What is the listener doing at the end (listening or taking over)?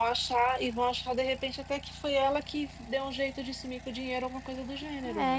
taking over